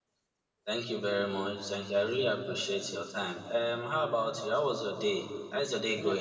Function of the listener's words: taking over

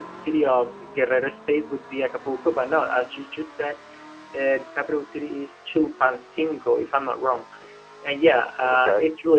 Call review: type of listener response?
listening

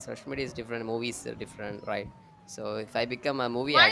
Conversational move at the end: taking over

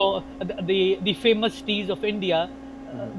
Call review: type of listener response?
listening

